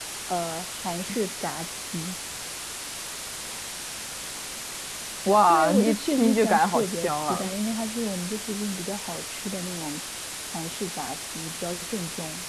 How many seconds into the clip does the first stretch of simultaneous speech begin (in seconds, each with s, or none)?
5.5 s